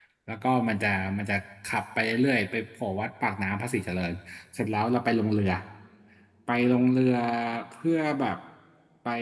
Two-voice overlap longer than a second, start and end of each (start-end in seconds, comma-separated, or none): none